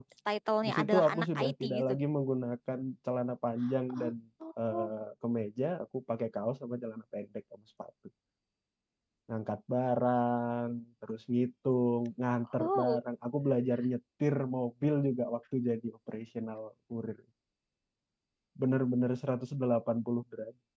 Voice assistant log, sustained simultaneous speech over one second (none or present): present